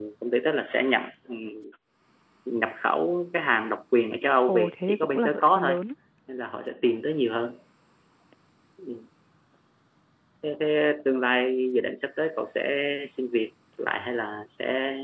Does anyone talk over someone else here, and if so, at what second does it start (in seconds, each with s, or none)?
4.5 s